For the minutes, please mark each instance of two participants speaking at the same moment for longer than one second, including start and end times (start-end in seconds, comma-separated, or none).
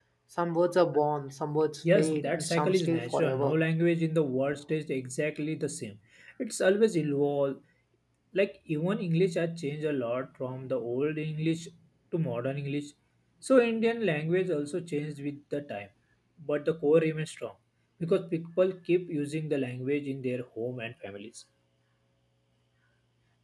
1.9-3.6